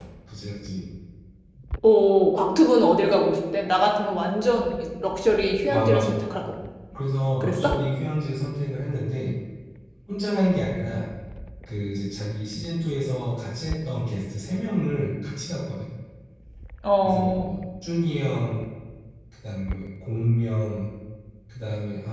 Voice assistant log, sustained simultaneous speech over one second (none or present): none